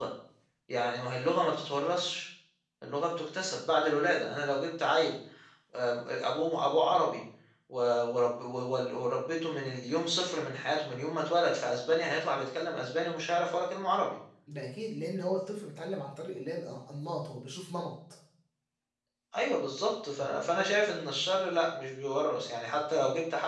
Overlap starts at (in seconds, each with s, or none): none